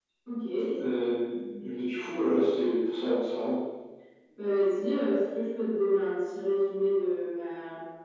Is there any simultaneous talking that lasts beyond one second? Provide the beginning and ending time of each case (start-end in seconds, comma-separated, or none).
none